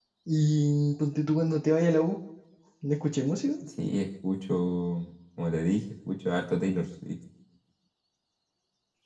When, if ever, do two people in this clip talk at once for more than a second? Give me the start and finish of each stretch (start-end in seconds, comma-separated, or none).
none